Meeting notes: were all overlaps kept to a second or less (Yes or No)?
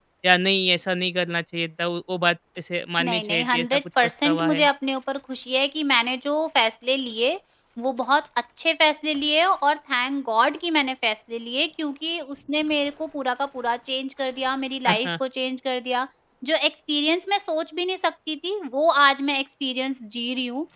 No